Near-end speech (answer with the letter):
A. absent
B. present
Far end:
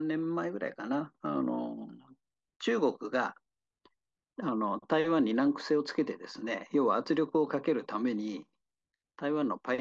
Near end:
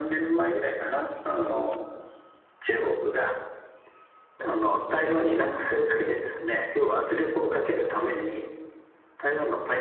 A